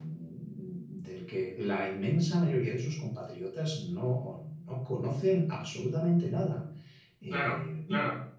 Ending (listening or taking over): taking over